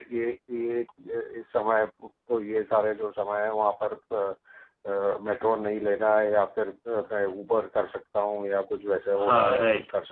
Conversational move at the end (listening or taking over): taking over